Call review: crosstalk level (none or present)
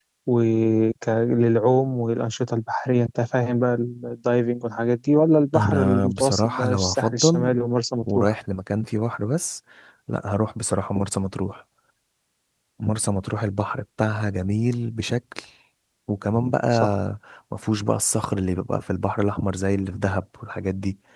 present